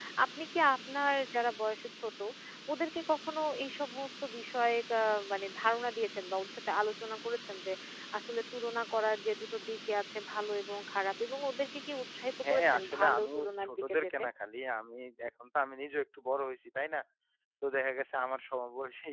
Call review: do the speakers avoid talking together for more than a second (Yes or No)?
No